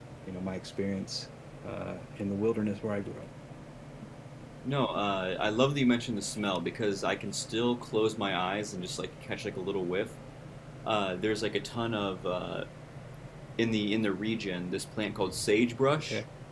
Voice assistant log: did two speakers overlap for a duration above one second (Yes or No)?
No